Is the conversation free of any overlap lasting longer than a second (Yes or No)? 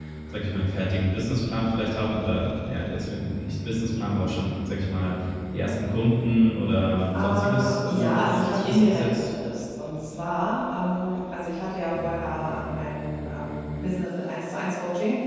No